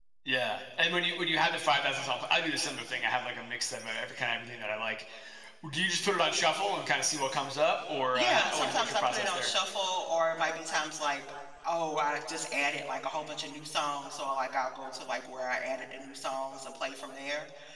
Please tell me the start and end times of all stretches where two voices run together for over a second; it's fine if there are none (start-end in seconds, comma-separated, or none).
8.2-9.5